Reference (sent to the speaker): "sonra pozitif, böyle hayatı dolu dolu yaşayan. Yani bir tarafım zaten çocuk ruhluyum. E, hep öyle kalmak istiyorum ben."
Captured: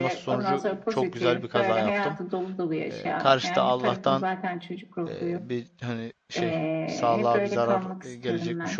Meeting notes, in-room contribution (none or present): present